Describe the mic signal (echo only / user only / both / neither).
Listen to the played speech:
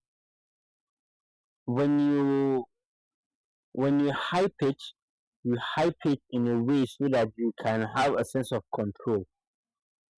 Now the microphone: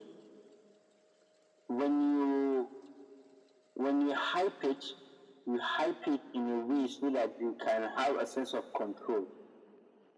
echo only